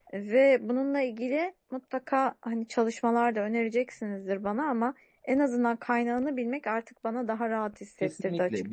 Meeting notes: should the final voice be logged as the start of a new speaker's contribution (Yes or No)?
Yes